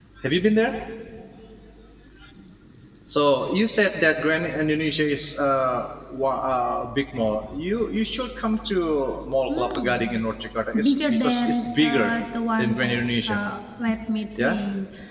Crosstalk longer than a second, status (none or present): present